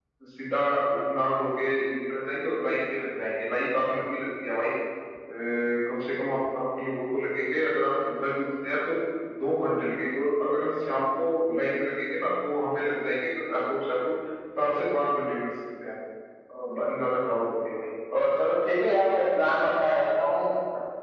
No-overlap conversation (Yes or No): Yes